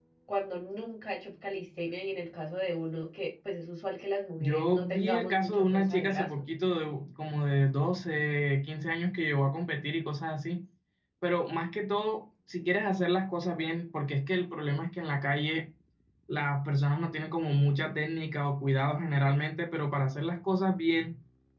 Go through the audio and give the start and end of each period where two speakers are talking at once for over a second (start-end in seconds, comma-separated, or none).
4.4-6.4